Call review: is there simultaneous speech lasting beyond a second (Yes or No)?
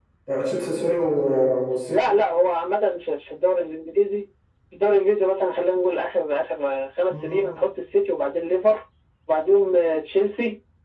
No